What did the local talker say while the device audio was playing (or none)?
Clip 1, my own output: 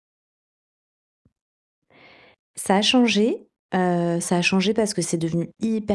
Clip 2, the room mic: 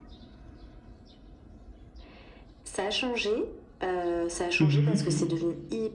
Mmh mh.